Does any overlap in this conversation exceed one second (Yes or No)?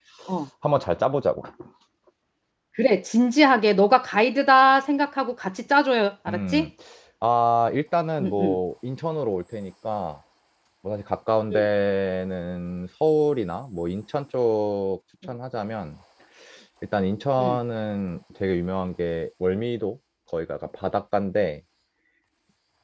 No